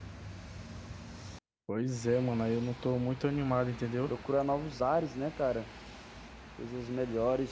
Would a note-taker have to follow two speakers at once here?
No

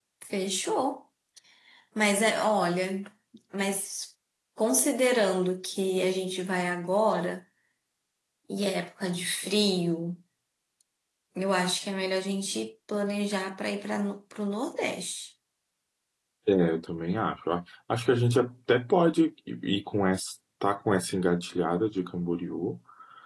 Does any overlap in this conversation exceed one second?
No

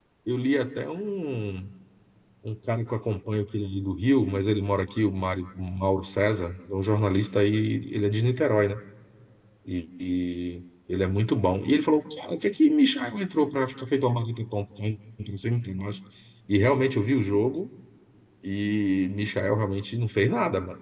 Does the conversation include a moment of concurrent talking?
No

